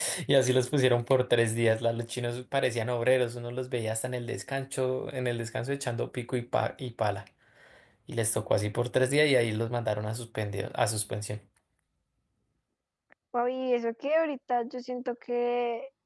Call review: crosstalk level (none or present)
none